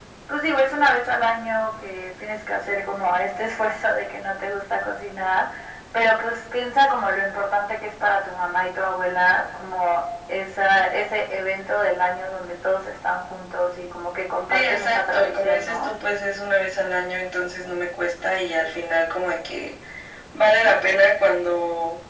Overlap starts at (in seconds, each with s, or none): 14.5 s